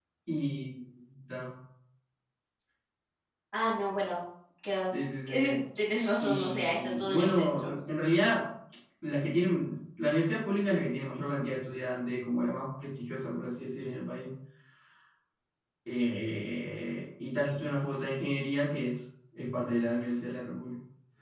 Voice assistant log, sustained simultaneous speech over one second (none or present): present